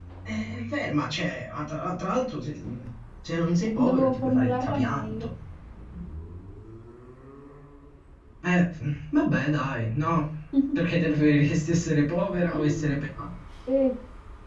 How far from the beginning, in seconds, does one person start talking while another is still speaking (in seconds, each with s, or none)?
3.8 s